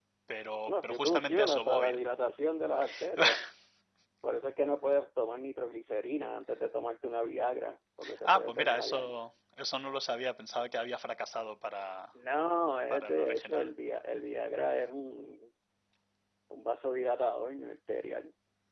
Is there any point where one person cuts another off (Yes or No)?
Yes